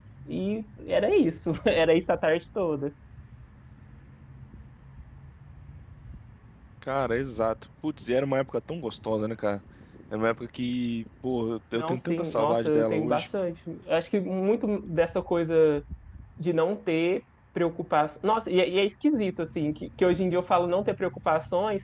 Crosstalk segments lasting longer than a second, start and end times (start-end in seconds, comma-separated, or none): 11.7-13.2